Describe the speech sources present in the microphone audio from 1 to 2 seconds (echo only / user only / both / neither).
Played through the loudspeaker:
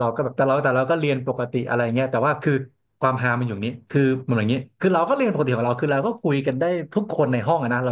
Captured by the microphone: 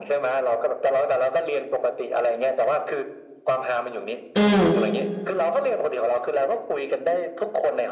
echo only